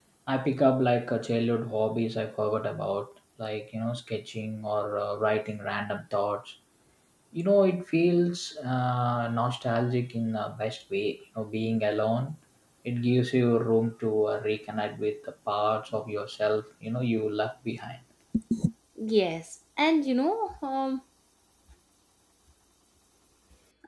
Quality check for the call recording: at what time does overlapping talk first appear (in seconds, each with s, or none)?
none